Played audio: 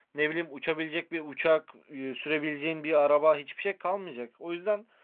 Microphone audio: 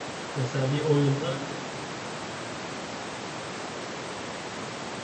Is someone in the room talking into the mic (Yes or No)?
Yes